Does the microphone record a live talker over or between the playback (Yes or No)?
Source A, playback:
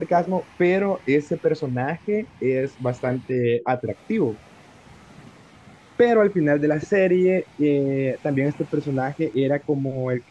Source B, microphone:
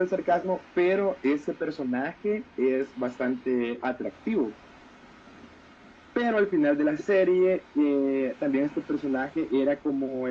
No